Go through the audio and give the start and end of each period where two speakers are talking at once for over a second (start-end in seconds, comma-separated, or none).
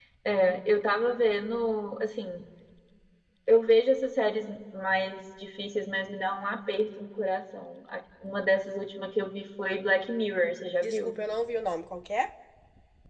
none